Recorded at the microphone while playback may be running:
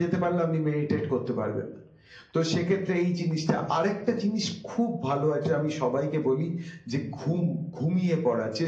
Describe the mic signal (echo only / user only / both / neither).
echo only